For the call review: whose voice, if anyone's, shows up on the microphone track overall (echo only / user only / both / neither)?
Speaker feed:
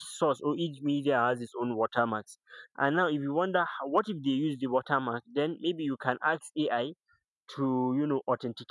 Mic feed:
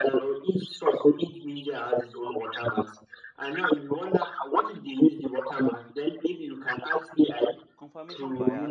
both